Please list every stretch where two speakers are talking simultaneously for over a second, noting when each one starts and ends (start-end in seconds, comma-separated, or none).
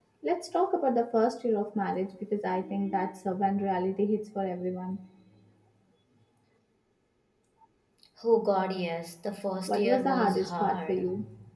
9.7-11.0